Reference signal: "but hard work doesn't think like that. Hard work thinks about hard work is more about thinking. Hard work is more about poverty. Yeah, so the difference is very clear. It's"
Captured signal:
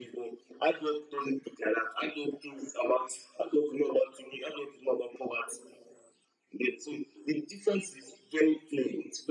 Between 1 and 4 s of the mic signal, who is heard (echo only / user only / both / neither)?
echo only